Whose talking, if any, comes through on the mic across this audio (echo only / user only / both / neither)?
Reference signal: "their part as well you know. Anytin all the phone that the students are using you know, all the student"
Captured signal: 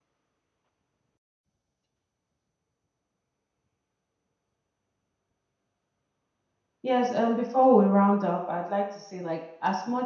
user only